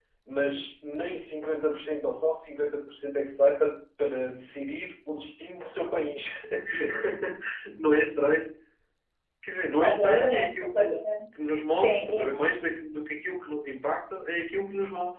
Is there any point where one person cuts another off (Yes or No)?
Yes